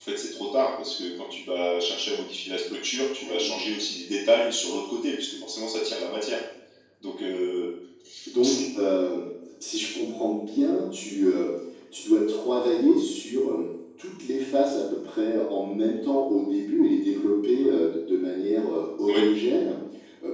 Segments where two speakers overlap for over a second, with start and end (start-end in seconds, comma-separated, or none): none